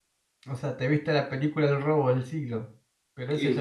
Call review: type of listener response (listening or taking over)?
taking over